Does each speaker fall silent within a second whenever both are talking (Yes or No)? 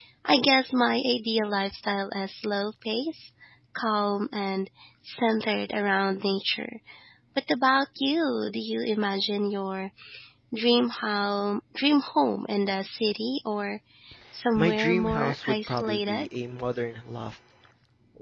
No